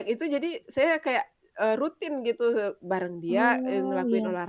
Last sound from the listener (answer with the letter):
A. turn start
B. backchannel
B